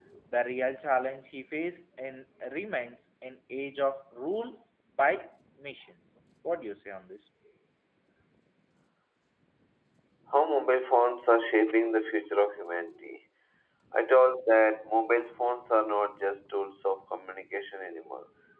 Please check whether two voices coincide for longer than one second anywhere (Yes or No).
No